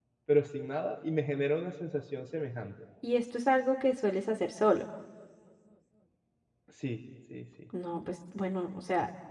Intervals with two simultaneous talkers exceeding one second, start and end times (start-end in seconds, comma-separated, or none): none